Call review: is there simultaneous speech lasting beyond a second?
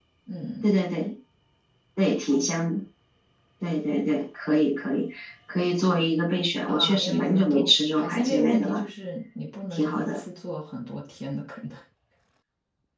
Yes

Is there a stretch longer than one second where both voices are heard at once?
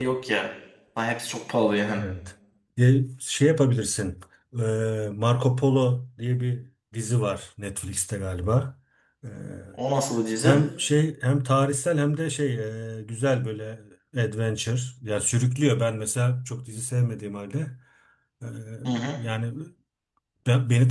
No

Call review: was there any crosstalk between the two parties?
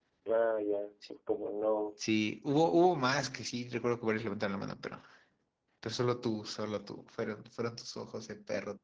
No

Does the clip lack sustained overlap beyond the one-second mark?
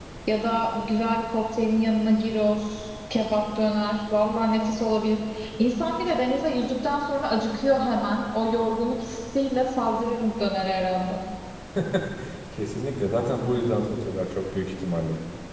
Yes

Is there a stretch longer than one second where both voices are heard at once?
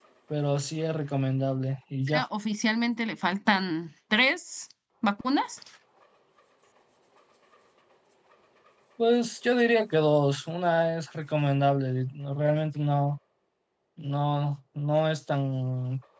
No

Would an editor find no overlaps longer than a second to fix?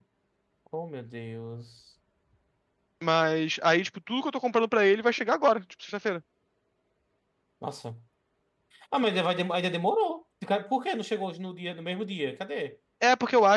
Yes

